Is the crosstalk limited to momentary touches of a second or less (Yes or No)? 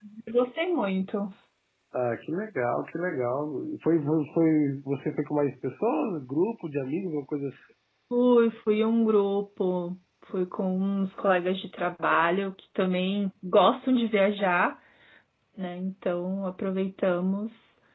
Yes